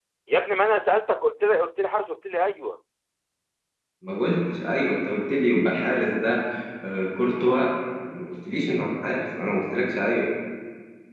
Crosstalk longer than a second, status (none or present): none